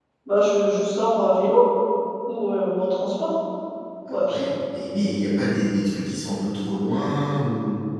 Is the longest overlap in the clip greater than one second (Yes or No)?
No